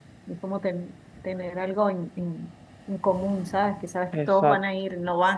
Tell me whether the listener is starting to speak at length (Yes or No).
No